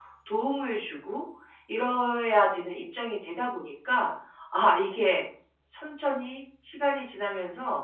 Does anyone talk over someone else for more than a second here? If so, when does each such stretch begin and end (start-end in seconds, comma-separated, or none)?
none